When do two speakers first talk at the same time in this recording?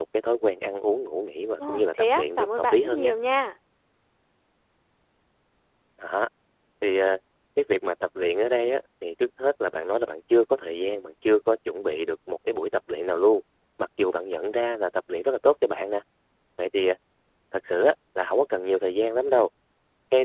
1.6 s

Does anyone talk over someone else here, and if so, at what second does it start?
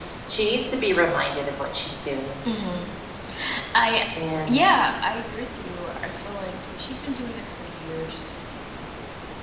none

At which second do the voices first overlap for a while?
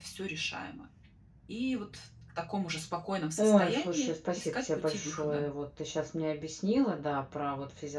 3.4 s

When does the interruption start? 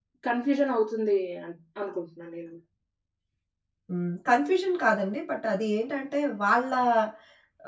none

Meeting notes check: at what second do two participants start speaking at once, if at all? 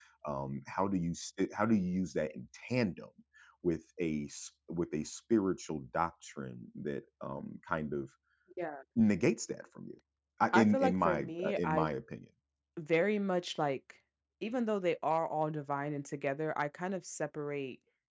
10.5 s

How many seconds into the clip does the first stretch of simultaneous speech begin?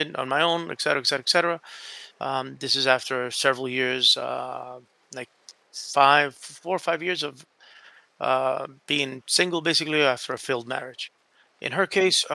none

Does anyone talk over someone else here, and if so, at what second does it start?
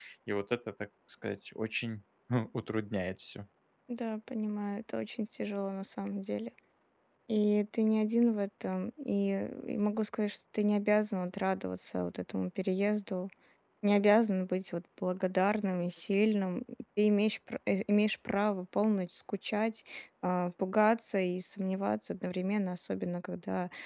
none

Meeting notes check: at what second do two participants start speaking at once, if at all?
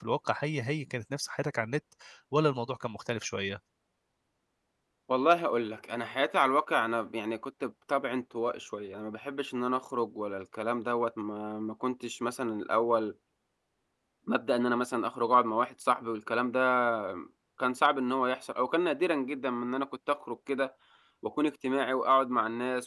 none

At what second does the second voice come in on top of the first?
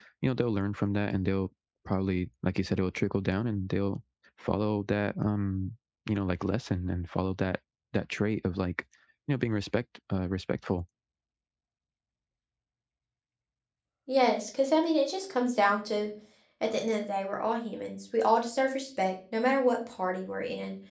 none

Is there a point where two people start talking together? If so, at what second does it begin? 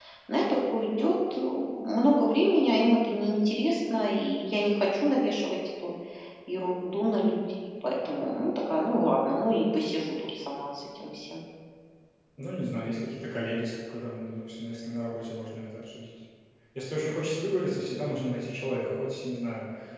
none

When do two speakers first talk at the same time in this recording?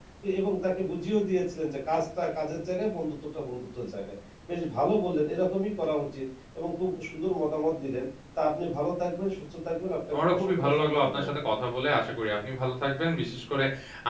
10.1 s

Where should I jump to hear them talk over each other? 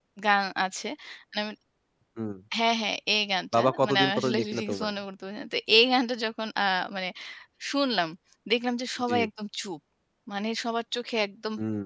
3.5 s

